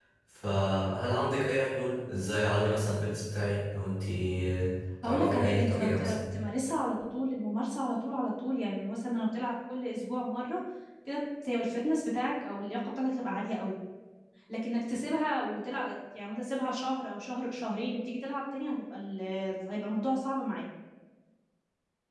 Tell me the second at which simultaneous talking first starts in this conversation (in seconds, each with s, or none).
5.0 s